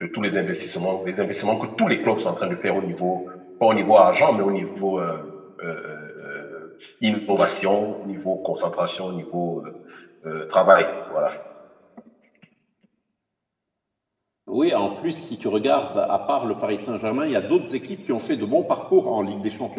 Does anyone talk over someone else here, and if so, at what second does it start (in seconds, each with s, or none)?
none